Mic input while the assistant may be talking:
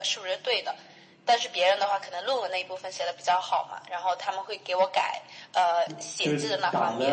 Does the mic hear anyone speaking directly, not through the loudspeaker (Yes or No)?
Yes